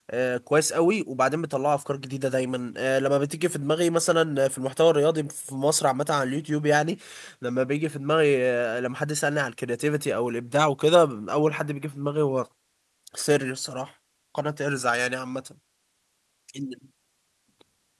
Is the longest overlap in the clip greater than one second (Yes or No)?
No